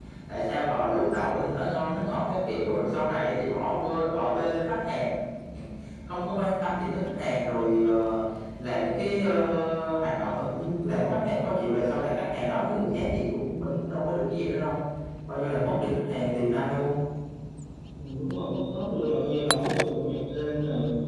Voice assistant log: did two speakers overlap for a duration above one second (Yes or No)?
No